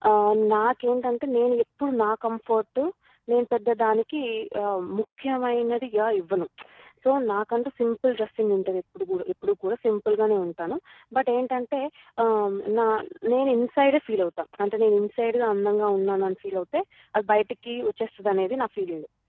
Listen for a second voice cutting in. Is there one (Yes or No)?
No